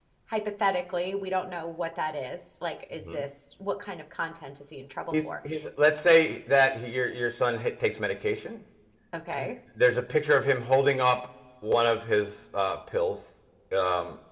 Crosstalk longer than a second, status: none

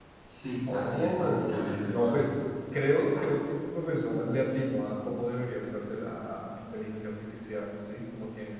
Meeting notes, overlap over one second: present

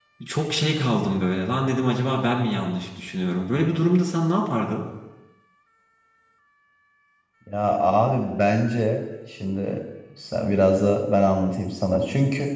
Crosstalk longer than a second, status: none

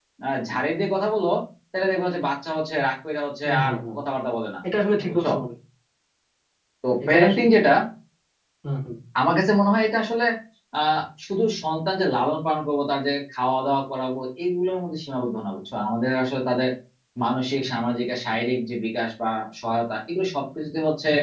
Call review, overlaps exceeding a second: none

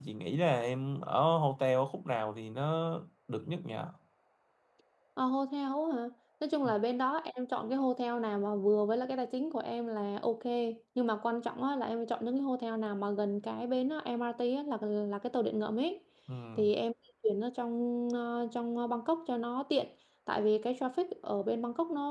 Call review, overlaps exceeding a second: none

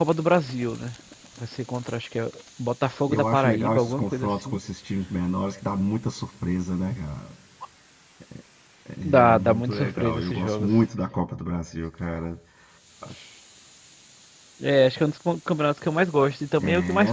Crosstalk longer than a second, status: present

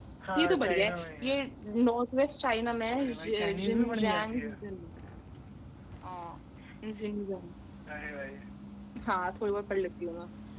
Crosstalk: present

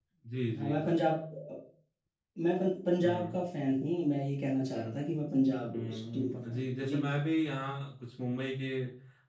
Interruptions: present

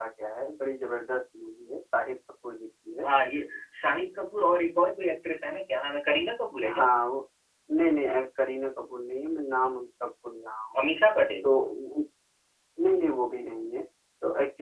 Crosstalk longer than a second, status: none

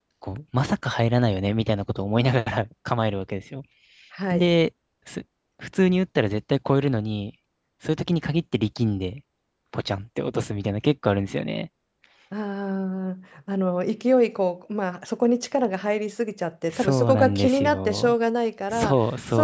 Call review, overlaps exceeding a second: present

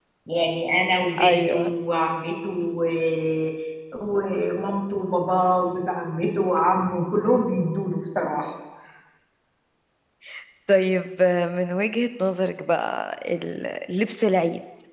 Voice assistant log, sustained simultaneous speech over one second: none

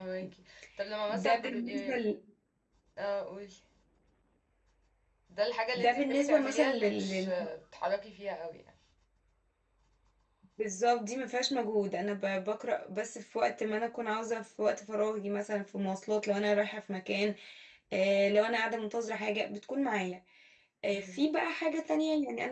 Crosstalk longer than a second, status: present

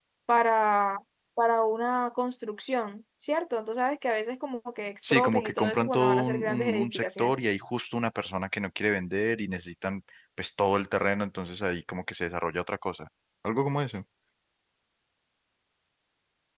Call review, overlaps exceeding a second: present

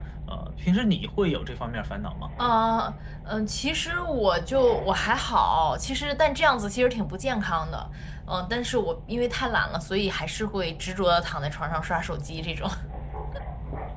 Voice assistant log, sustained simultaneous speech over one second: none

